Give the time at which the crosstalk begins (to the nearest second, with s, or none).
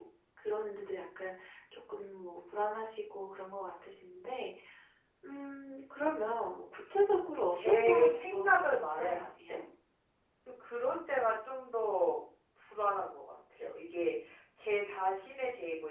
8 s